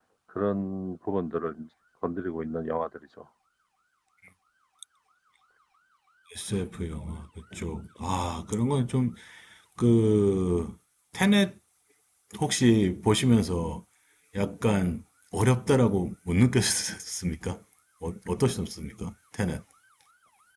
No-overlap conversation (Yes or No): Yes